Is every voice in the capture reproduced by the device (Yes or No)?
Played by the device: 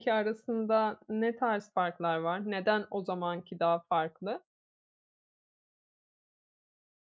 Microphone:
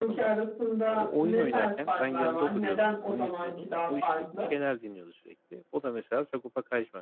No